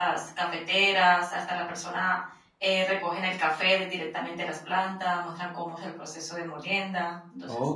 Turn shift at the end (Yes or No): Yes